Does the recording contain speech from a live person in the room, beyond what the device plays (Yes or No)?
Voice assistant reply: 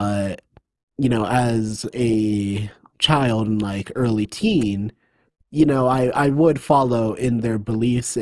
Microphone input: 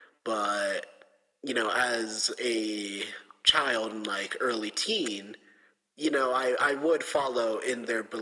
No